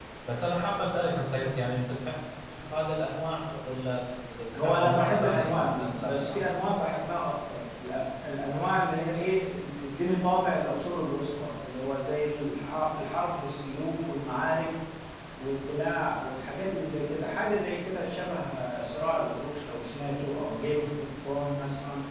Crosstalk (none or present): present